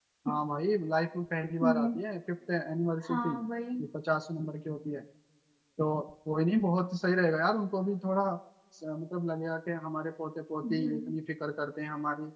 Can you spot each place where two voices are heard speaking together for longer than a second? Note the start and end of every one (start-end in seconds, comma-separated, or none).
none